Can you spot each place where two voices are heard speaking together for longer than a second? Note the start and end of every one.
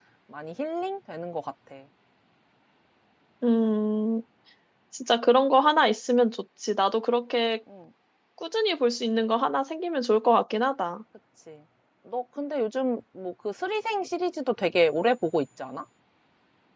none

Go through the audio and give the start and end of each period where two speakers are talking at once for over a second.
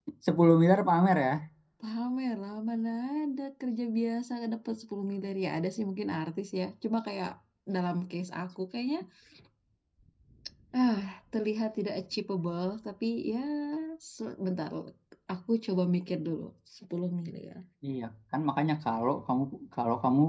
none

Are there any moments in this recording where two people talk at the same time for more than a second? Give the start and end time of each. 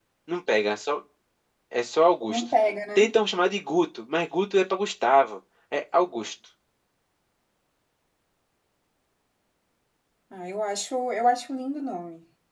none

